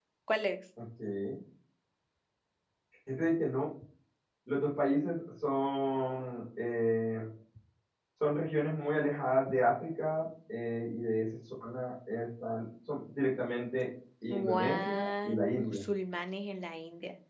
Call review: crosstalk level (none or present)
present